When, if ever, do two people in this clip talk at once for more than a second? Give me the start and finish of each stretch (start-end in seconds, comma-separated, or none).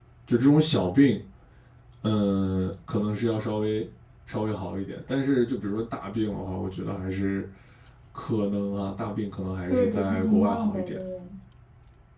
9.7-11.0